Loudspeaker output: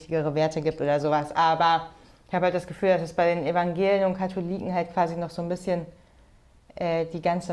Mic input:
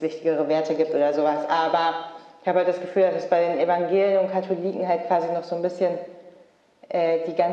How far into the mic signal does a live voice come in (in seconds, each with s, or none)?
none